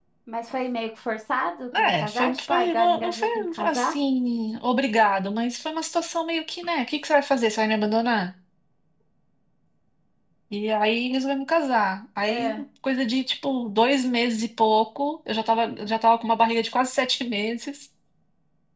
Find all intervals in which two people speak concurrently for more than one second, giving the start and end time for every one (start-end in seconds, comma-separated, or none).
1.8-3.9